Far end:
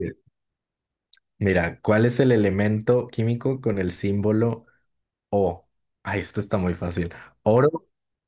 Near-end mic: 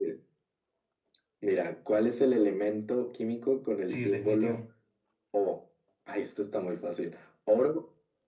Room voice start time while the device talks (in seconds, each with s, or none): 3.8 s